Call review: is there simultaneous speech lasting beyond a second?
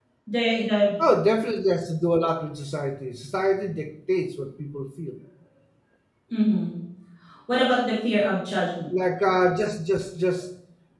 No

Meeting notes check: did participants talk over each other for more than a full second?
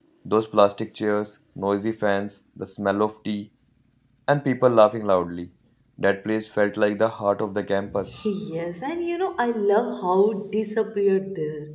No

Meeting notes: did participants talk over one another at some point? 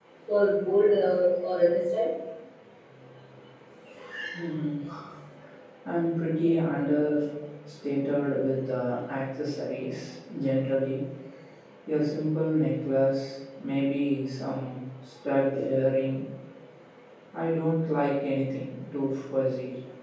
No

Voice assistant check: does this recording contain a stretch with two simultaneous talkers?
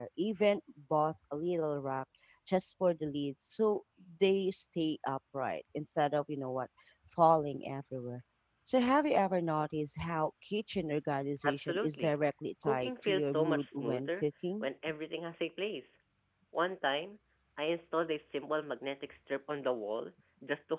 Yes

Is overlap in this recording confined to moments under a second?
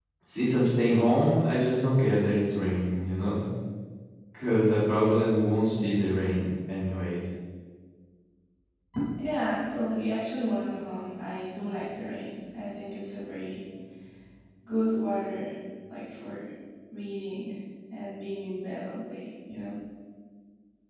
Yes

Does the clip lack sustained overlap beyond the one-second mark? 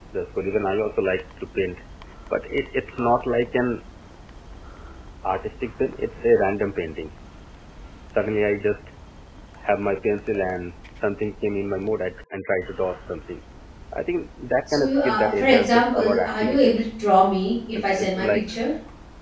No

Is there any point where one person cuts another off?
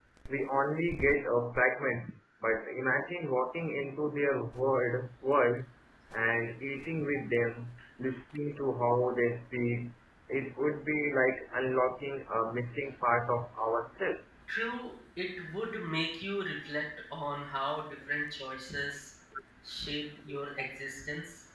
No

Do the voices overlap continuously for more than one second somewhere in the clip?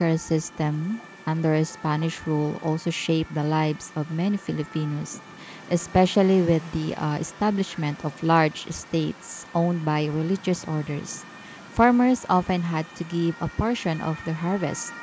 No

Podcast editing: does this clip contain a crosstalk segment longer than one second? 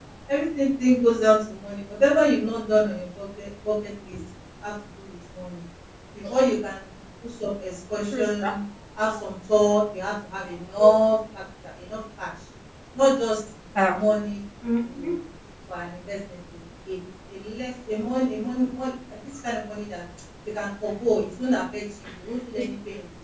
No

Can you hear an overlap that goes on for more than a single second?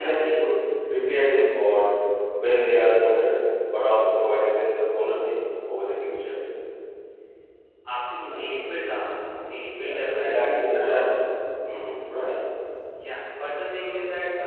Yes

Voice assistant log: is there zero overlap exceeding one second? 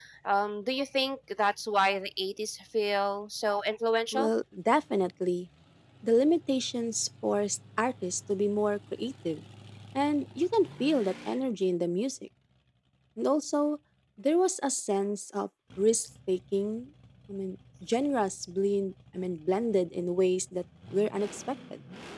Yes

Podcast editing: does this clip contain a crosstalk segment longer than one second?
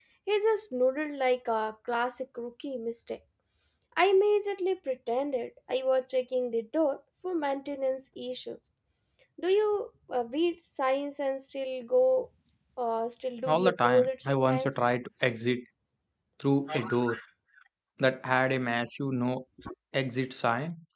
Yes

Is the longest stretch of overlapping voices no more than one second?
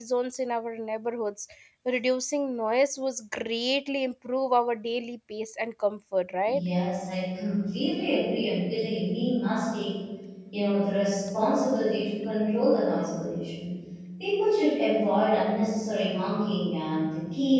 Yes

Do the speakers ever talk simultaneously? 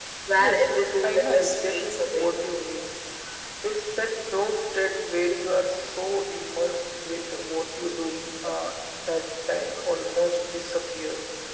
Yes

